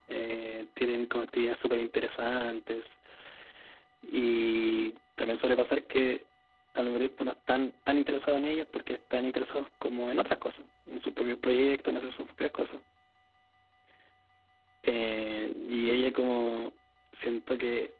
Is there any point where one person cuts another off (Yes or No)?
No